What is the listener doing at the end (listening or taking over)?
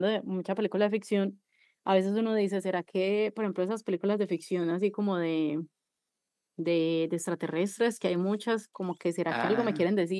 listening